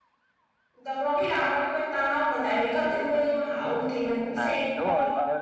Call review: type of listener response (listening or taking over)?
taking over